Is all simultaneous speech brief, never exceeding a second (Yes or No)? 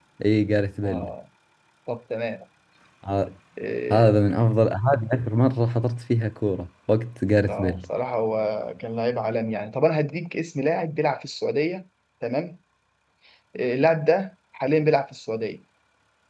Yes